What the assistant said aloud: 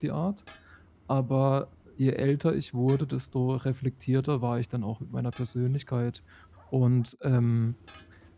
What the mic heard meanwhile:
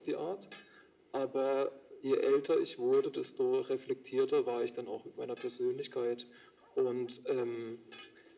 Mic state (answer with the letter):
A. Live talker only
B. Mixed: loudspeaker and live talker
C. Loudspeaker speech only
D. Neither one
C